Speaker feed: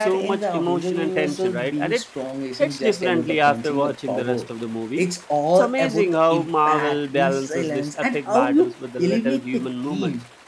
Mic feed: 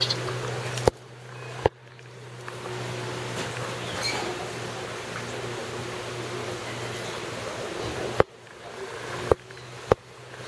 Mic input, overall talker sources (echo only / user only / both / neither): neither